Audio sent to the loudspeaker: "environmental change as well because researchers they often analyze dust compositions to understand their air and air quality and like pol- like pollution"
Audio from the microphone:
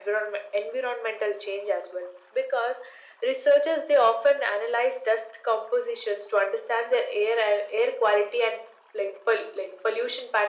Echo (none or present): present